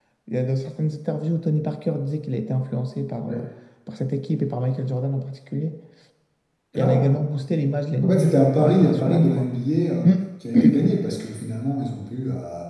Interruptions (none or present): present